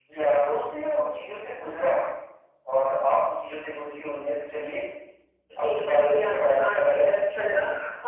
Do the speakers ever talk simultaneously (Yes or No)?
Yes